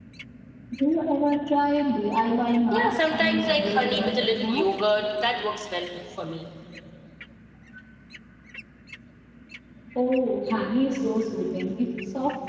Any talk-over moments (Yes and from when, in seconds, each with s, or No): Yes, from 2.7 s